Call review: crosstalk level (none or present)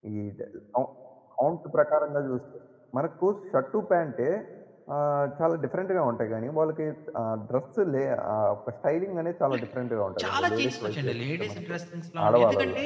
present